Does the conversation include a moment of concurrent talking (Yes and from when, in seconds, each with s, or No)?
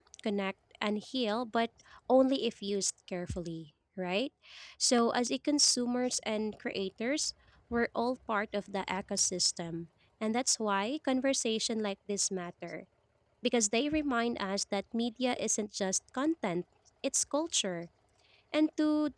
No